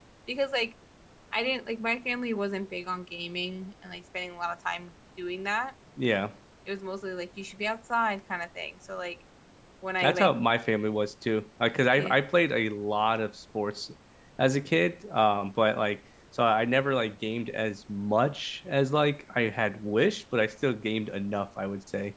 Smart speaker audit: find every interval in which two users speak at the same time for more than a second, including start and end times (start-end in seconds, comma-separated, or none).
none